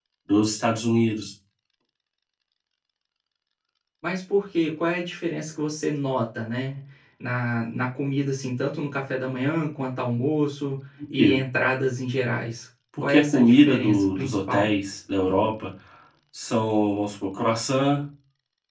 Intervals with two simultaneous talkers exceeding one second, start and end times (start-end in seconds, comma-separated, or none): 13.0-14.7